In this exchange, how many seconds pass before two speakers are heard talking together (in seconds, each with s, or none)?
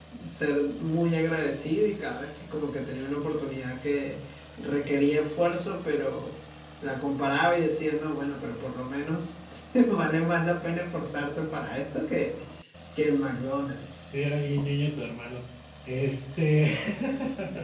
none